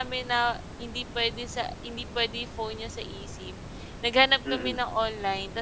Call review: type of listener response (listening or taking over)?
listening